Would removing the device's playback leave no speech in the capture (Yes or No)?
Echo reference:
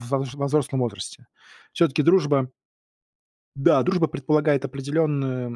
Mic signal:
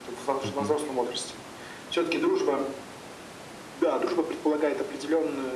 No